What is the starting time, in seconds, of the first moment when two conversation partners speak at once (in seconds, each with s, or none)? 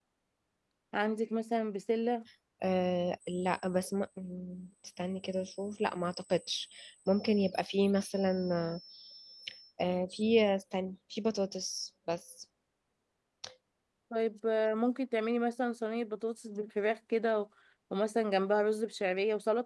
none